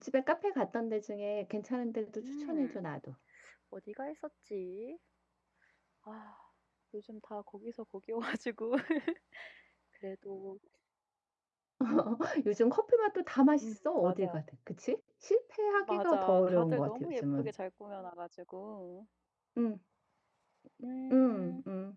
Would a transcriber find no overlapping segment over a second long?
No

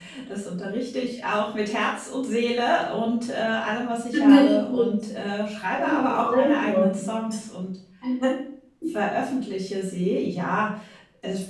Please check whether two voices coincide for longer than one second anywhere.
Yes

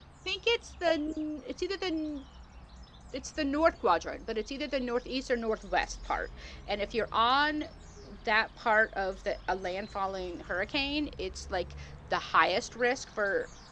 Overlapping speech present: No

